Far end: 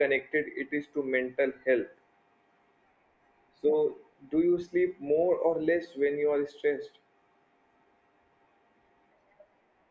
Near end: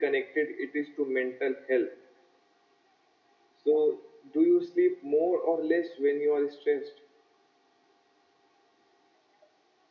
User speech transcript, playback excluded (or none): none